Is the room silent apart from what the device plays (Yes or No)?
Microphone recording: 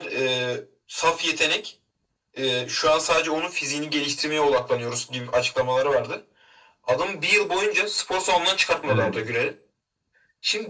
No